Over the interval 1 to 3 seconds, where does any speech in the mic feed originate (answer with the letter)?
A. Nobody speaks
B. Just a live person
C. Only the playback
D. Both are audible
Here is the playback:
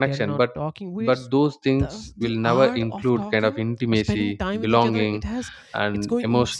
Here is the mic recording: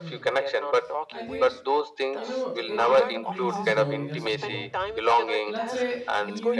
D